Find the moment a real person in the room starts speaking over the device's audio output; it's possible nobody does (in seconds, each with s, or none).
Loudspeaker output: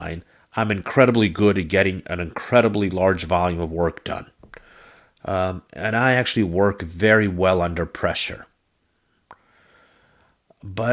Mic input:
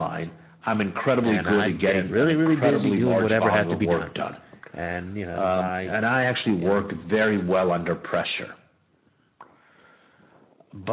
1.2 s